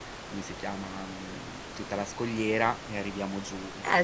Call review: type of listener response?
taking over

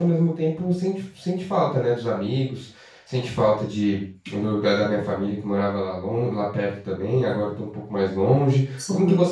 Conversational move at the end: listening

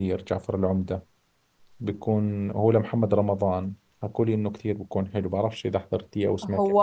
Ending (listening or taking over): taking over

